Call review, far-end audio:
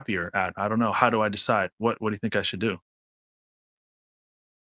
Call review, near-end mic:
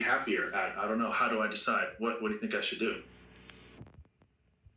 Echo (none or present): present